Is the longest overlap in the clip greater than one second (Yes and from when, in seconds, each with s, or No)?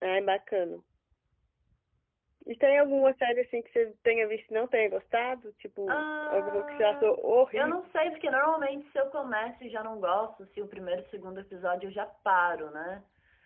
Yes, from 5.9 s